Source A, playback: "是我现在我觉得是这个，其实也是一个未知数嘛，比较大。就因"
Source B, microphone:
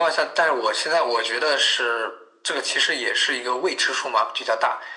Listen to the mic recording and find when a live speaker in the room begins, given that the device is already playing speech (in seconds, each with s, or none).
none